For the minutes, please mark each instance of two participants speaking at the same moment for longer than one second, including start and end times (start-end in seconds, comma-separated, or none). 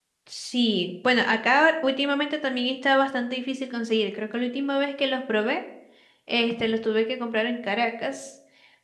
none